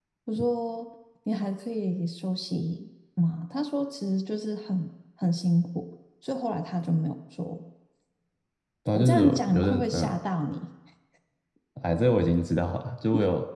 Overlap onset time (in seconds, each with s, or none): 8.9 s